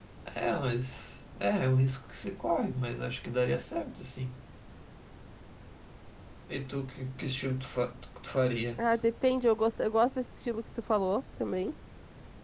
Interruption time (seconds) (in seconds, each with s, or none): none